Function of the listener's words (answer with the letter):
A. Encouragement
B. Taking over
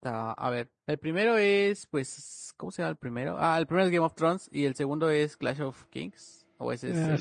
B